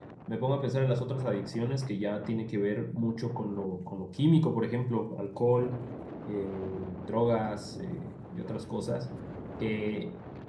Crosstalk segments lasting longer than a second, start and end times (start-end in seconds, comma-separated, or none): none